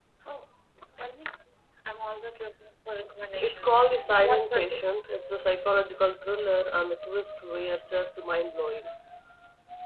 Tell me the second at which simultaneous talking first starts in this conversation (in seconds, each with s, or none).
3.4 s